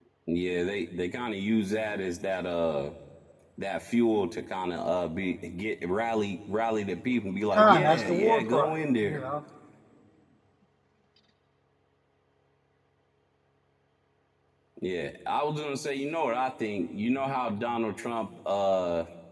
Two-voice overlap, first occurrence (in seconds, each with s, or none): 7.5 s